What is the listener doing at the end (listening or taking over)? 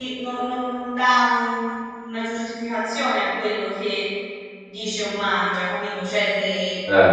listening